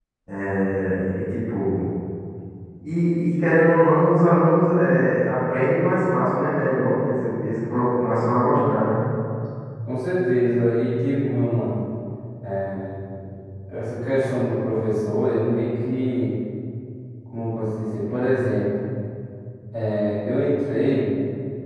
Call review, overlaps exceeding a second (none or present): none